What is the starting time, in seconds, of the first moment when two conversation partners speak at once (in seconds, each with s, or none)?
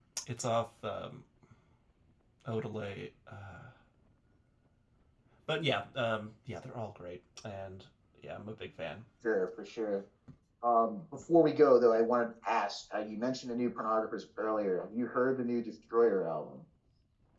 none